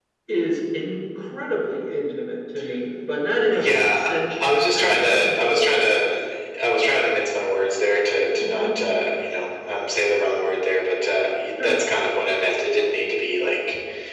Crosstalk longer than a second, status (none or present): present